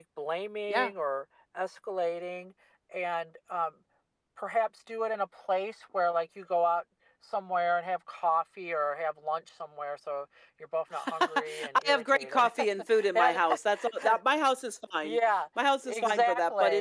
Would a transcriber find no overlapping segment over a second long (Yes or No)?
No